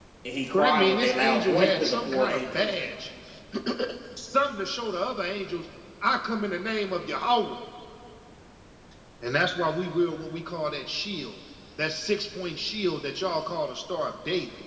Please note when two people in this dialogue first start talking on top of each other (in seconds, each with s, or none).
0.5 s